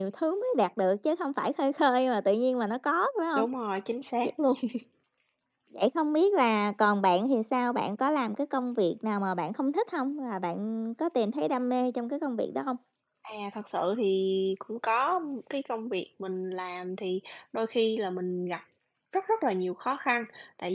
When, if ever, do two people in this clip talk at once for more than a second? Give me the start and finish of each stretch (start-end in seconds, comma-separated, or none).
none